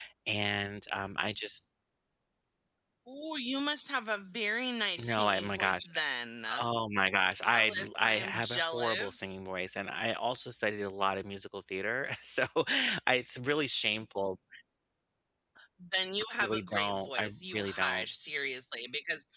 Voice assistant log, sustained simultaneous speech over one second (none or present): present